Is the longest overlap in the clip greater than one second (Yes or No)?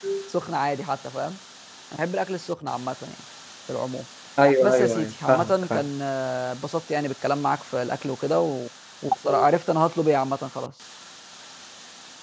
Yes